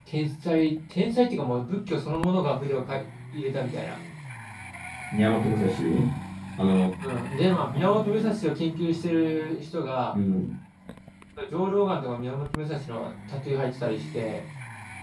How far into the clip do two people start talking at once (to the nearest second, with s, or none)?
none